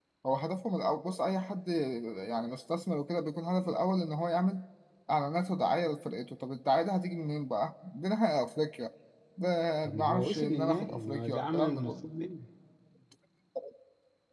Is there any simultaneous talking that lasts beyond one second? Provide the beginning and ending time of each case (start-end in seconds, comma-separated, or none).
9.8-12.0